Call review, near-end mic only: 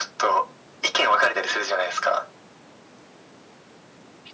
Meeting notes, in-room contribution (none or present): none